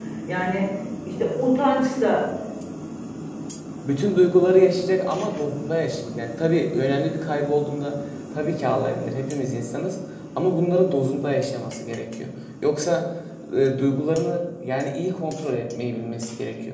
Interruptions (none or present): none